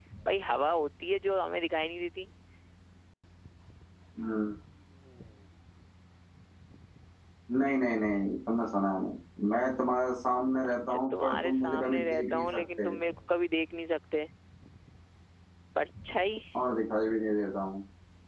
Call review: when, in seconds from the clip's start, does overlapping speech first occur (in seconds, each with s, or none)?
10.7 s